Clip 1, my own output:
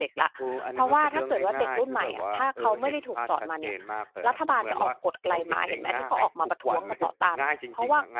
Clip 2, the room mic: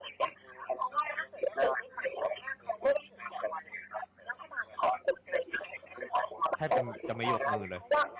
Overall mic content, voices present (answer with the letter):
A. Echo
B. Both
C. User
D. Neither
B